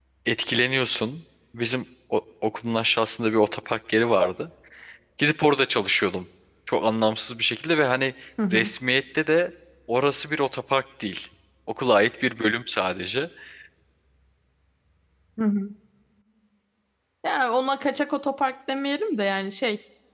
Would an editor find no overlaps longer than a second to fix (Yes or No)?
Yes